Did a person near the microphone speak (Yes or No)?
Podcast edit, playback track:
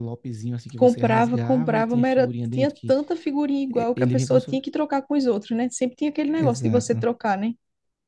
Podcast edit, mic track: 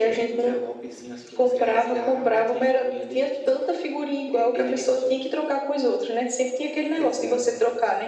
No